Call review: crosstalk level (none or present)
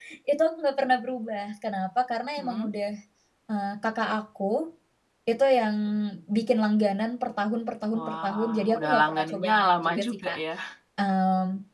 present